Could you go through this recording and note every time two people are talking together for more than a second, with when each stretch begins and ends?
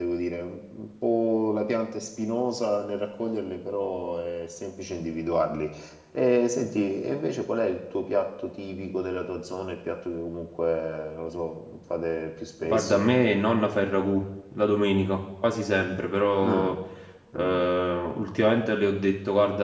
none

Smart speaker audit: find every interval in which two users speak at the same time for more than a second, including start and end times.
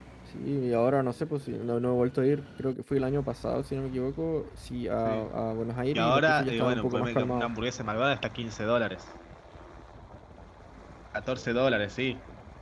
5.9-7.5

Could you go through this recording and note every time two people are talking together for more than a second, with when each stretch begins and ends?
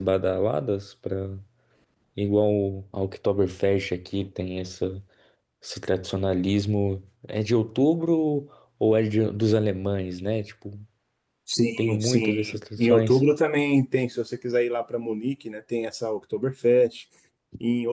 11.8-13.2

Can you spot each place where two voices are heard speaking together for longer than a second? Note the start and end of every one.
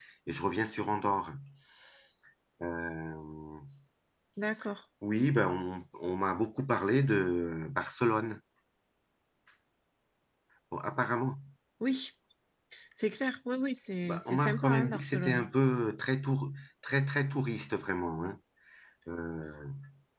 14.0-15.5

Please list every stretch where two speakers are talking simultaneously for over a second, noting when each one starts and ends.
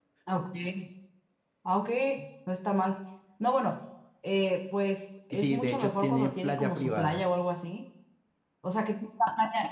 5.3-7.2

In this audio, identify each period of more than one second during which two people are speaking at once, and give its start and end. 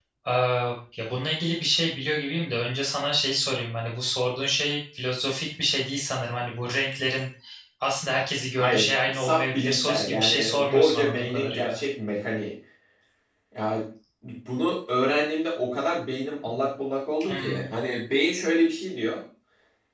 8.6-11.8

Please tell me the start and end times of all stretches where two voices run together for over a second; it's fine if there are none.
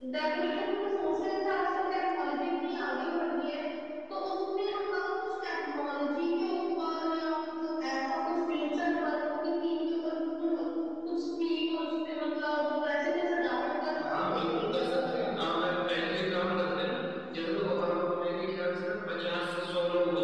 14.0-15.4

